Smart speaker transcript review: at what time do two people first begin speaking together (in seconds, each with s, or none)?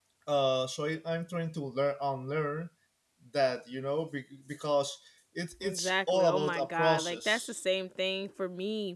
5.6 s